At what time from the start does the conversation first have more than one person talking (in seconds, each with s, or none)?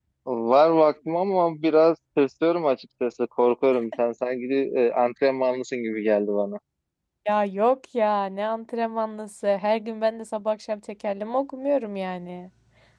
none